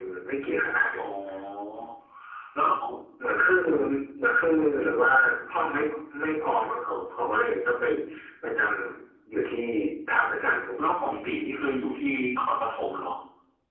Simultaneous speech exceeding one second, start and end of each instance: none

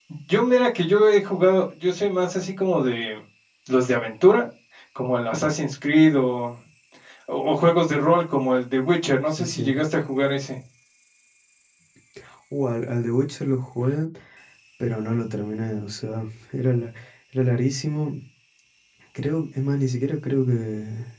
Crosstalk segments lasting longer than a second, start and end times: none

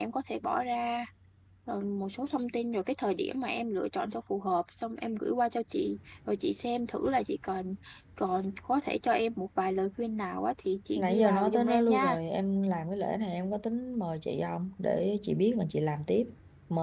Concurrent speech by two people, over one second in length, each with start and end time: 10.9-12.2

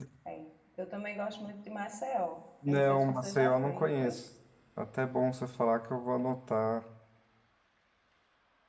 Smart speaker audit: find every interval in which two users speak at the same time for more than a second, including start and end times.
2.7-4.2

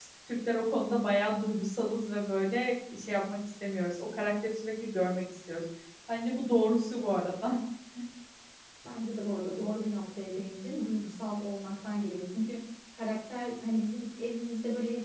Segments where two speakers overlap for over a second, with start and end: none

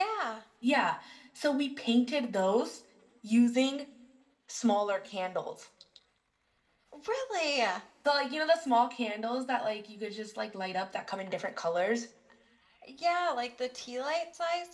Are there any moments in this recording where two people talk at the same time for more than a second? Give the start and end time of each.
none

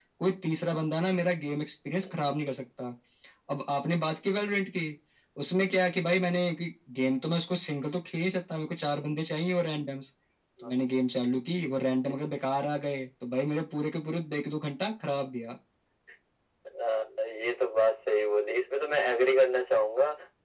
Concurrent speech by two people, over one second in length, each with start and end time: none

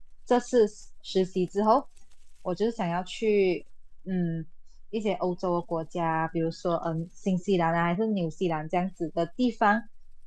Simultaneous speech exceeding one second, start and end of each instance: none

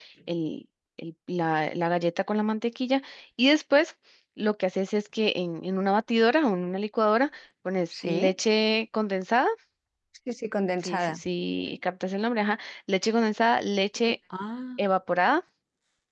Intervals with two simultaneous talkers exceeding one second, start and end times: none

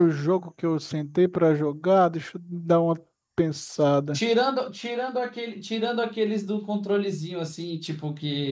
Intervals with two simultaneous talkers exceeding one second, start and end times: none

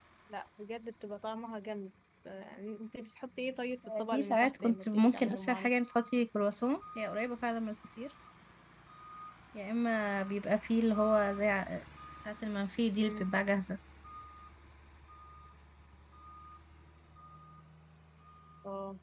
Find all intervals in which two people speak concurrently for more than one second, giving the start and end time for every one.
4.0-5.7

